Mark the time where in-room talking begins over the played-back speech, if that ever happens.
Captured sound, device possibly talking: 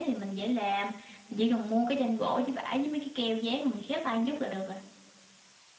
none

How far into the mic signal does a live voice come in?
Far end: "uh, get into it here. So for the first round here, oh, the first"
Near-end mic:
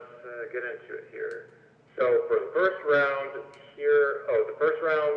none

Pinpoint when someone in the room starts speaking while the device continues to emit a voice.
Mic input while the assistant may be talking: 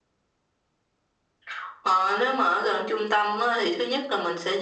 none

